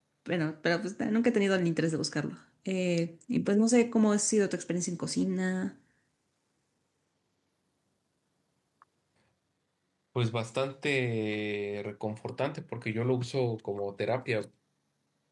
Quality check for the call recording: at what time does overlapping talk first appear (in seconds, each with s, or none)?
none